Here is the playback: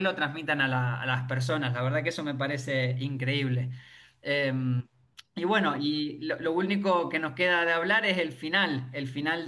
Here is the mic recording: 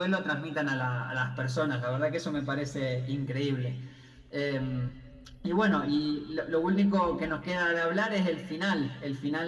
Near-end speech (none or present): none